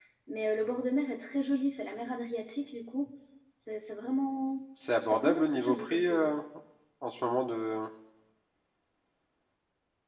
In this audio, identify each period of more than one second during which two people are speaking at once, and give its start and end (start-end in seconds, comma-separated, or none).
5.0-6.4